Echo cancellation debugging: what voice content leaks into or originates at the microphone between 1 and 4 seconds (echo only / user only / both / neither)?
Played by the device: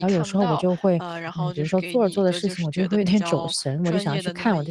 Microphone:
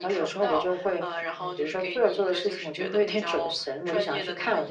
echo only